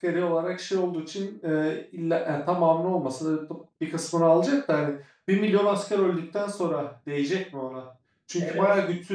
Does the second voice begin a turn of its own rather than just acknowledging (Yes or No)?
No